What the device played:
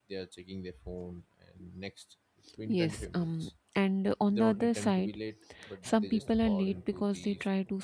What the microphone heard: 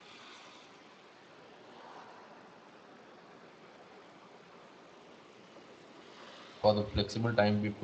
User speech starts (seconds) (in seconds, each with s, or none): 6.6 s